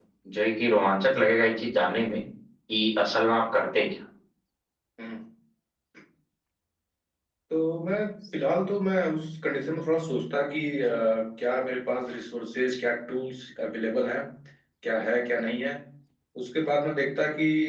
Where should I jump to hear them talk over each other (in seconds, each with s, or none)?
none